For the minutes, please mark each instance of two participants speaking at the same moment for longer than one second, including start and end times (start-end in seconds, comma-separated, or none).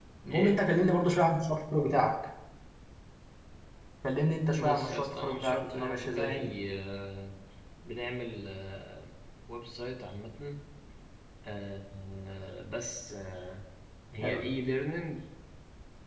4.6-6.5